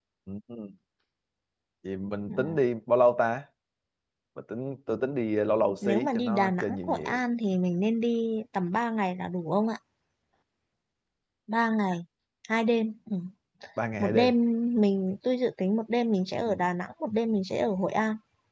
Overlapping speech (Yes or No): Yes